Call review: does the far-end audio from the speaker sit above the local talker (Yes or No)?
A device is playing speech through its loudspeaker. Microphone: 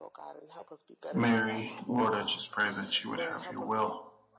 No